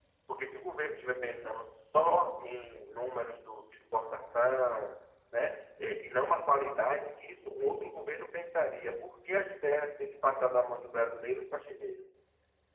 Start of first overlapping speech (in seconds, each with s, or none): none